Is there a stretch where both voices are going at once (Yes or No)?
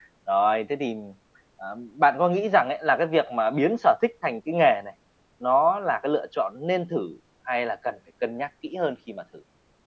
No